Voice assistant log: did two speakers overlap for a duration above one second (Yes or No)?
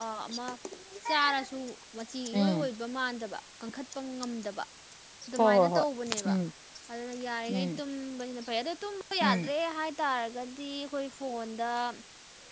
No